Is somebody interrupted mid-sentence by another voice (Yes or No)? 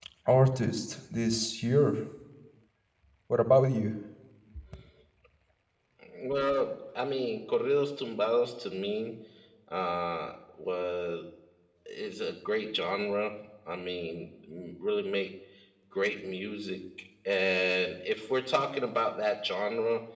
No